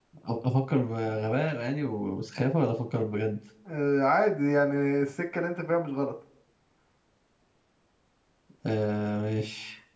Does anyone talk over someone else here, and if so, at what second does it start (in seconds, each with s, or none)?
none